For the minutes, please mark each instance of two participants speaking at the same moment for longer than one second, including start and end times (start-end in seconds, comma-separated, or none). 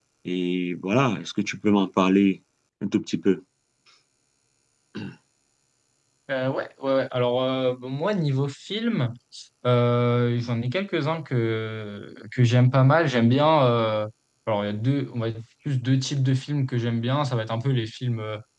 none